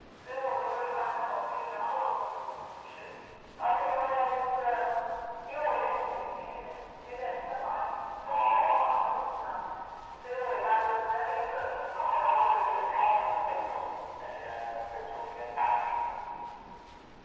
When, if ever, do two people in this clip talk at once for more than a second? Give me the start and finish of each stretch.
11.9-13.3

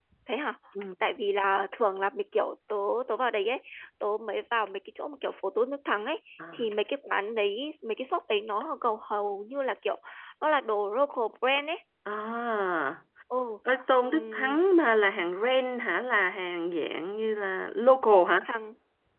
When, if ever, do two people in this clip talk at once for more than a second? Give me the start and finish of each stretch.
none

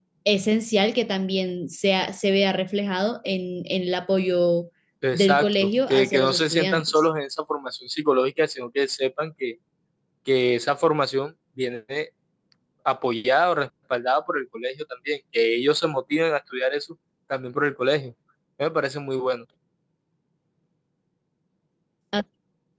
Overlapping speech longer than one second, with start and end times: 5.1-7.0

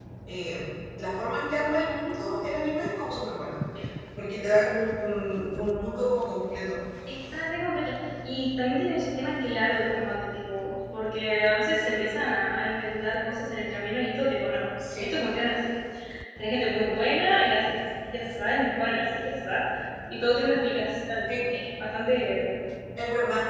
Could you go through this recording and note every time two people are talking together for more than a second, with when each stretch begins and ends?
none

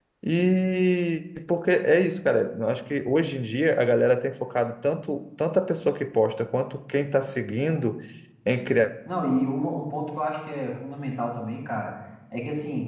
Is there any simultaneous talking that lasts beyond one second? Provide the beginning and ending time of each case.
none

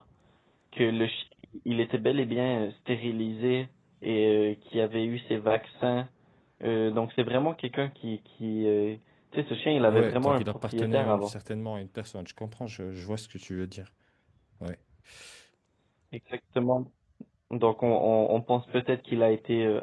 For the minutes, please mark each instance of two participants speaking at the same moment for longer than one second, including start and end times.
9.9-11.3

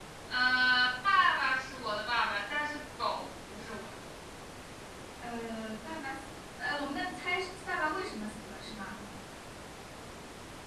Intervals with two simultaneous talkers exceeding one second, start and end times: none

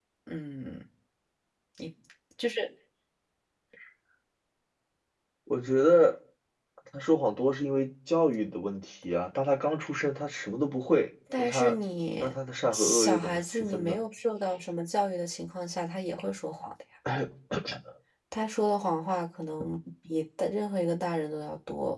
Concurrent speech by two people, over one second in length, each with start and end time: 12.7-14.0

